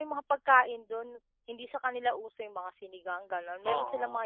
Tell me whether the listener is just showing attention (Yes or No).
No